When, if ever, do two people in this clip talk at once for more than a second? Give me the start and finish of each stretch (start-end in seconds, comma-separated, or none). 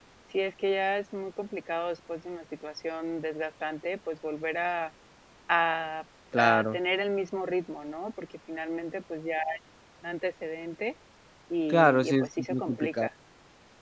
11.7-13.1